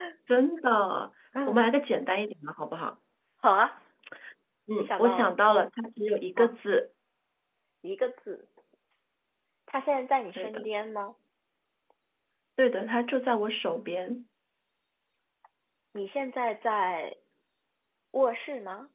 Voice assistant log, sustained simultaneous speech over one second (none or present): none